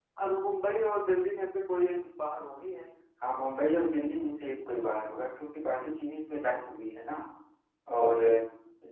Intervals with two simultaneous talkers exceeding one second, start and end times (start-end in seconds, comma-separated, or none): none